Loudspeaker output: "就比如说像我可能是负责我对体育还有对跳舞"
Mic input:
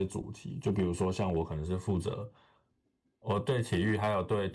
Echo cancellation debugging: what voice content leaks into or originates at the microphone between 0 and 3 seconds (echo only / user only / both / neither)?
echo only